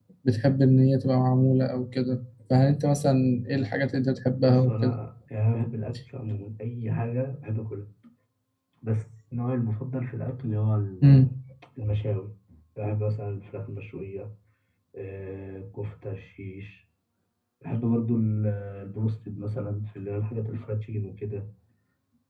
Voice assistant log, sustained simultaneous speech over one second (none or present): none